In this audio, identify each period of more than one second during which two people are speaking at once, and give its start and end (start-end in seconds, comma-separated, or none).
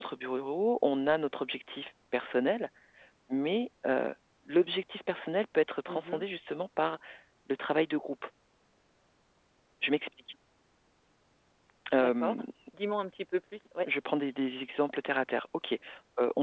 none